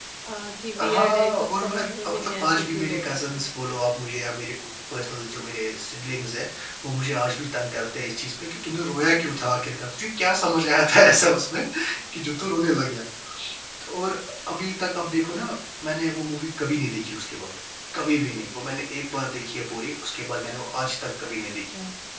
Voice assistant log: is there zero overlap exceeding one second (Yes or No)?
No